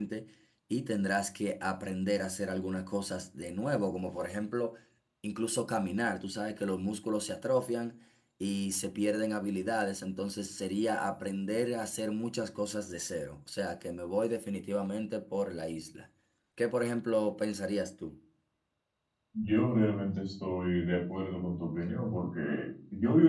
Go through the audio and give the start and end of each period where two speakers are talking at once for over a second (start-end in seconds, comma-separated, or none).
none